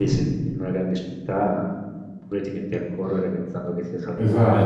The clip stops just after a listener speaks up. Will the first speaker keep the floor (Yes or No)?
No